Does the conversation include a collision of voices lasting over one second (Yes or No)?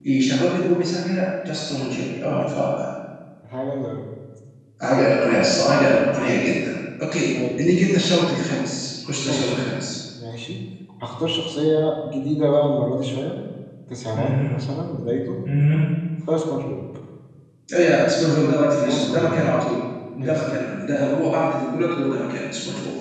No